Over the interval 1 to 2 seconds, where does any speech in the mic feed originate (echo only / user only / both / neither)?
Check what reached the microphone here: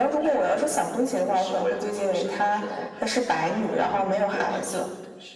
echo only